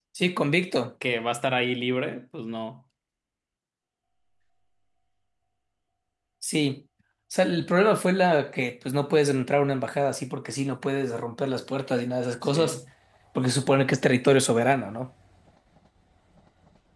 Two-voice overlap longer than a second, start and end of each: none

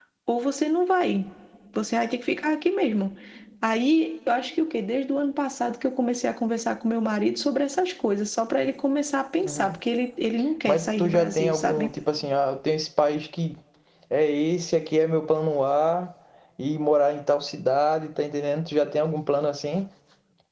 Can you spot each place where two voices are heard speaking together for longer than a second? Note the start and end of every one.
10.7-11.9

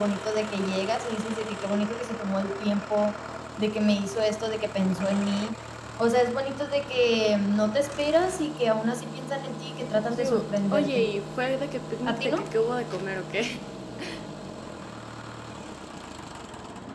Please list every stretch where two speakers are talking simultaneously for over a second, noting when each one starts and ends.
9.8-11.1

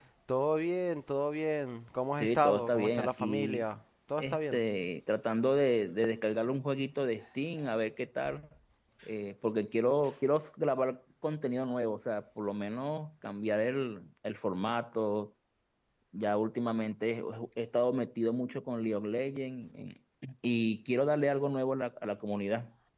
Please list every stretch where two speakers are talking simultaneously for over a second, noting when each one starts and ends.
2.2-3.6

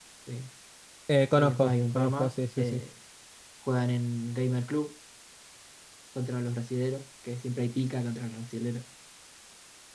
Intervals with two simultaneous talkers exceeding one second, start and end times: 1.3-2.8

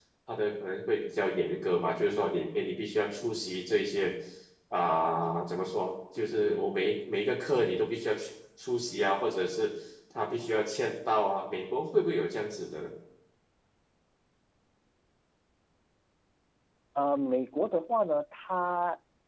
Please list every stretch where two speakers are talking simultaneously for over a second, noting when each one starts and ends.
none

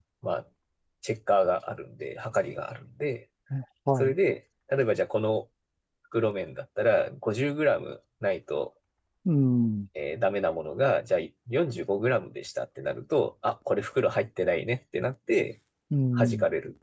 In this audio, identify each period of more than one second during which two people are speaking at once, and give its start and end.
none

